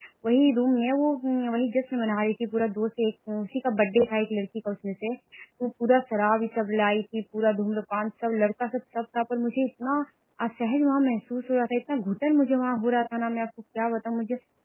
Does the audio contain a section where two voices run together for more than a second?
No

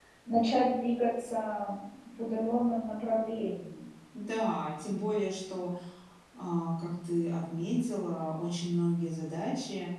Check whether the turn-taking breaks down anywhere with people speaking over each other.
No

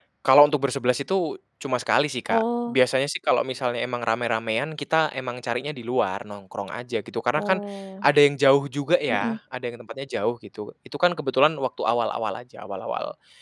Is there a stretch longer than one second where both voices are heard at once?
No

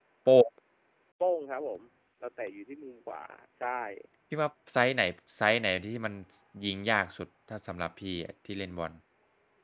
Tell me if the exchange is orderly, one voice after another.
Yes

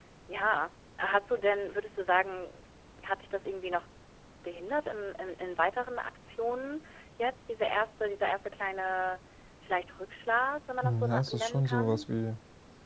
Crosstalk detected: Yes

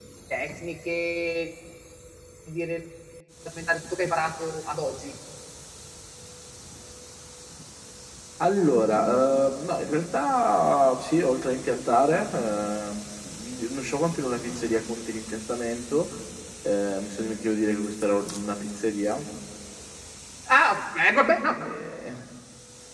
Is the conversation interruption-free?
Yes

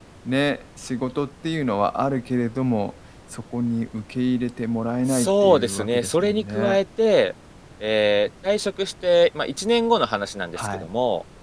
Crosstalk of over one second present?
Yes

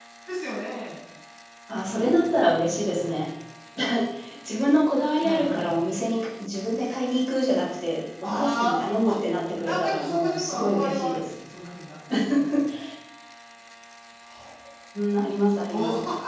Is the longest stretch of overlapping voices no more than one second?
No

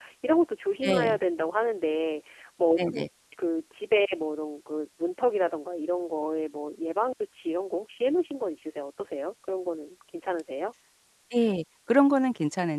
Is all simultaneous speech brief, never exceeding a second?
Yes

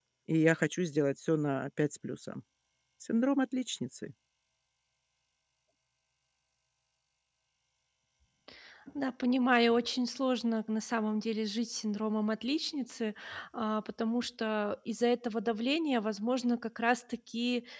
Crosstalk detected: No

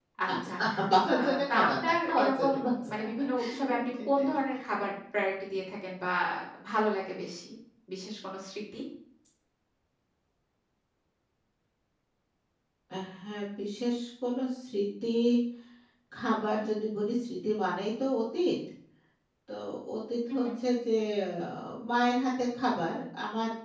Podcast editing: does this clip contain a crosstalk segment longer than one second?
Yes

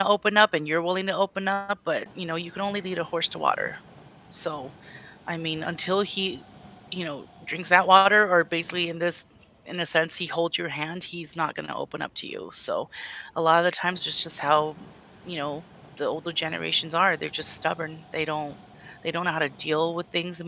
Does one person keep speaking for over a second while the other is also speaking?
No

